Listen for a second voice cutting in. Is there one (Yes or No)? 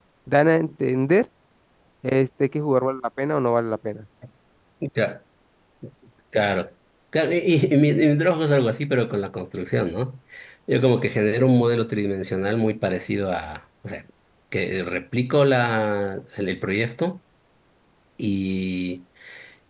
No